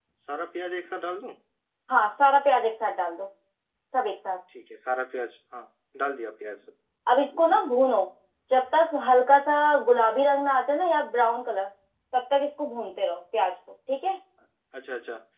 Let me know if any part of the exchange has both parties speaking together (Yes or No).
No